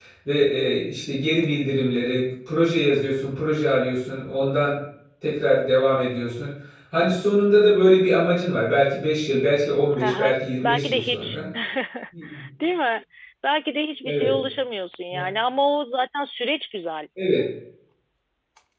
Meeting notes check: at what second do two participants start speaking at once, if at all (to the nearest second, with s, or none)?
10 s